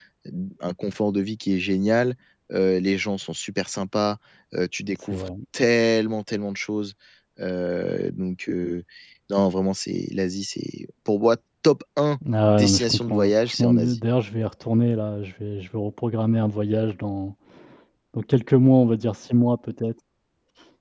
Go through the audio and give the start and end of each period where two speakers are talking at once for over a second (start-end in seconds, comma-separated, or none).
12.4-14.0